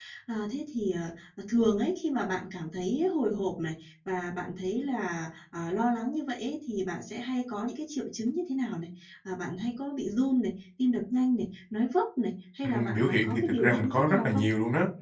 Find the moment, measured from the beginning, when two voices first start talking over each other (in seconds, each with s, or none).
12.6 s